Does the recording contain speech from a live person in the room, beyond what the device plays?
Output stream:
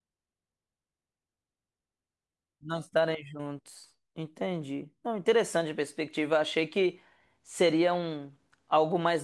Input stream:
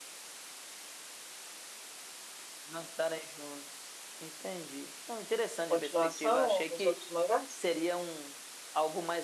Yes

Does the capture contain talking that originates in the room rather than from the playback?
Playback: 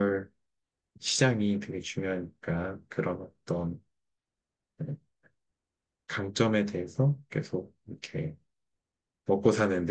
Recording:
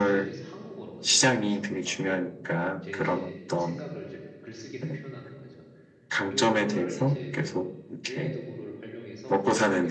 Yes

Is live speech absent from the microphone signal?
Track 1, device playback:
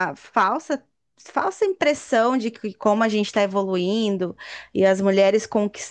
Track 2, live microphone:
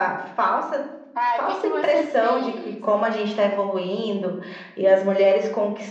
No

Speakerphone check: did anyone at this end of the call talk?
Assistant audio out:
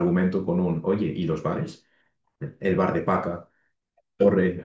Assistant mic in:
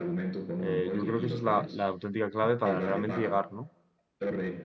Yes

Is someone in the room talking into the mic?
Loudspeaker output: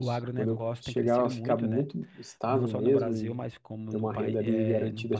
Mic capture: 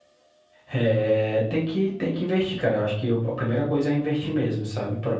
Yes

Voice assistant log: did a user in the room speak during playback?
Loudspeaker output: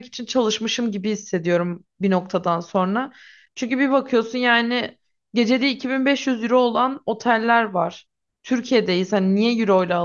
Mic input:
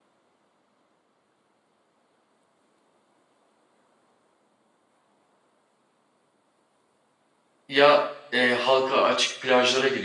Yes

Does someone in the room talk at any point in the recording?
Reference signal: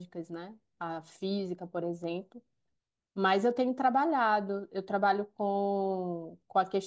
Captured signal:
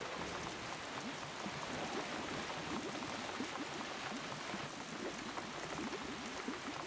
No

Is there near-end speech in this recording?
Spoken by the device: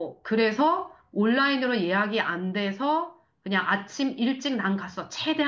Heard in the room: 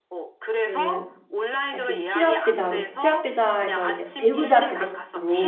Yes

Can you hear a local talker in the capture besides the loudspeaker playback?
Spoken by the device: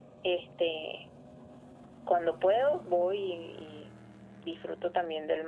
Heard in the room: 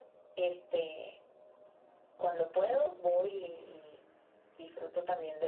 No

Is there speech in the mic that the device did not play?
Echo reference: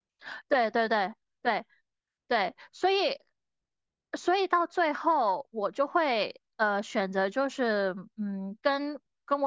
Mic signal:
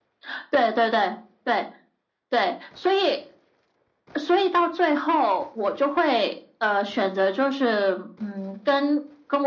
No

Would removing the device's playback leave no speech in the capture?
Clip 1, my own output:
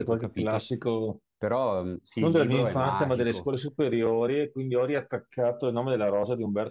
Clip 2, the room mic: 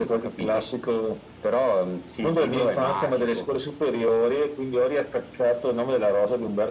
Yes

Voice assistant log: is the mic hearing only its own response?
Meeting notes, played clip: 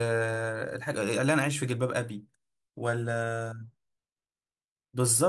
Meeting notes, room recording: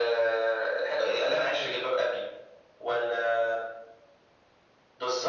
No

